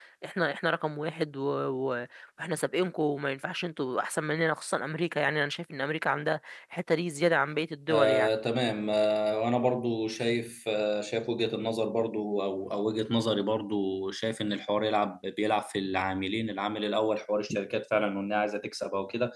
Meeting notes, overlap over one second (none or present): none